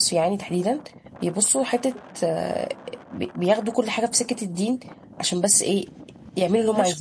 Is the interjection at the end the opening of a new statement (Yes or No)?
Yes